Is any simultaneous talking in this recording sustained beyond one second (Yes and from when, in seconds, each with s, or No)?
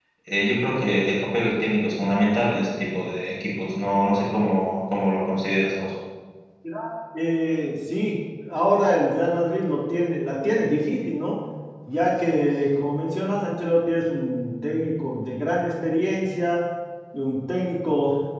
No